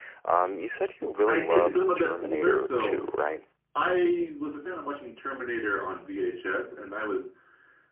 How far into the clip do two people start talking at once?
1.3 s

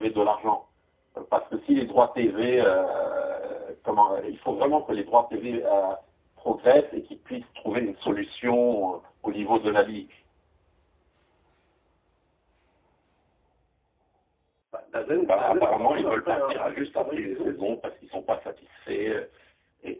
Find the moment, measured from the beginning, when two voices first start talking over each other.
15.2 s

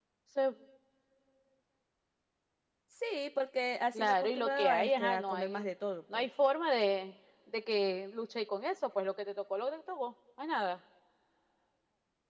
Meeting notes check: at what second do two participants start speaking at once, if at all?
4.0 s

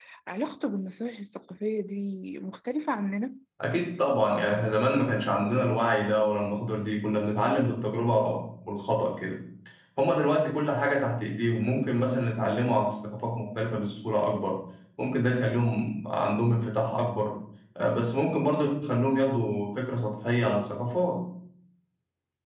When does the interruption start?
none

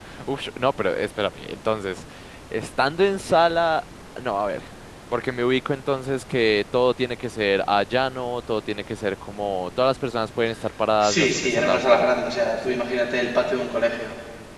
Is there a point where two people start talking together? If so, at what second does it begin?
11.0 s

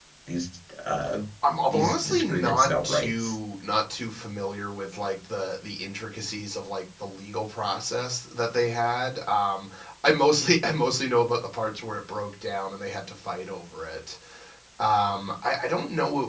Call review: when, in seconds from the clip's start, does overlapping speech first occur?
1.7 s

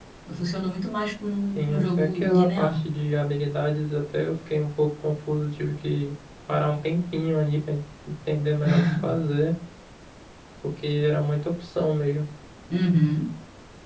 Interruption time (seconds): 1.6 s

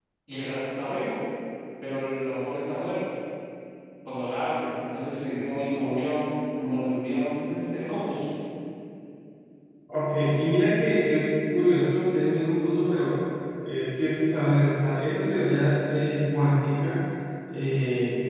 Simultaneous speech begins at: none

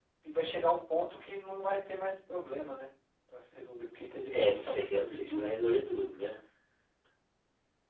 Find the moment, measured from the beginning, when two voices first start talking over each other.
4.3 s

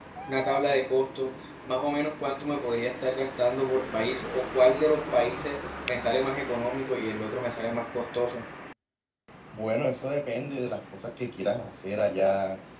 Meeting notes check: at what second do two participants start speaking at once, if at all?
none

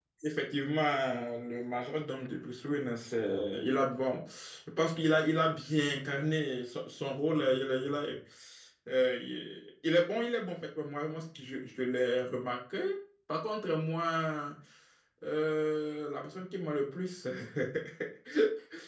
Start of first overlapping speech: none

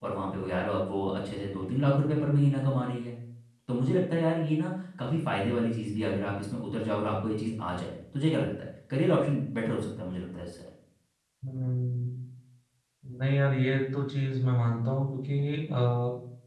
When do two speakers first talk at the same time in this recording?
none

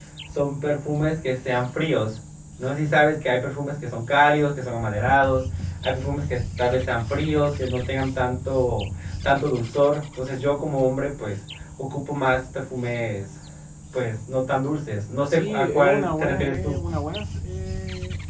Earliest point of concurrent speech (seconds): 15.2 s

